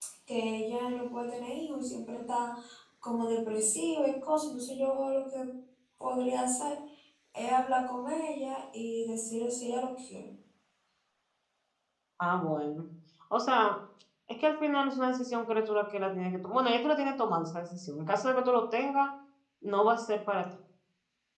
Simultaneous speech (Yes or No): No